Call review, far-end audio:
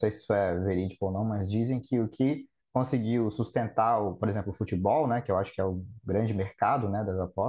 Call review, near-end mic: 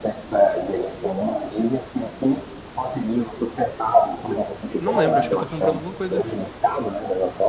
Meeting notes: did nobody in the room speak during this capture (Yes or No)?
No